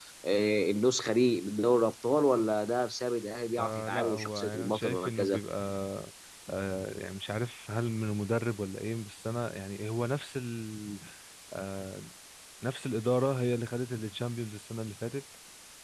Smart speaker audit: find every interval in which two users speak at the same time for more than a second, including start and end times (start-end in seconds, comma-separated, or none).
3.6-5.4